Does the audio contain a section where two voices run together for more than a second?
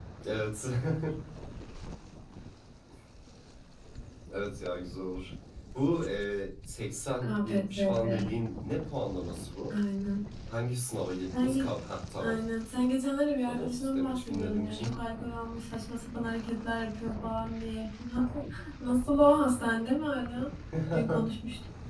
Yes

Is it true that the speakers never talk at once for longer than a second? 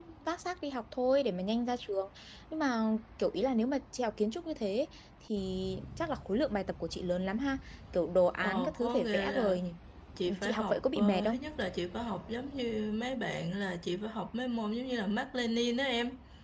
No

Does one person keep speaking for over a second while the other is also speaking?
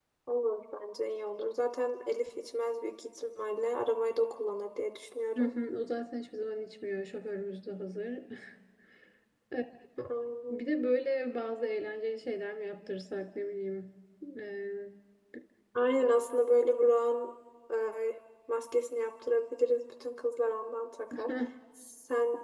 No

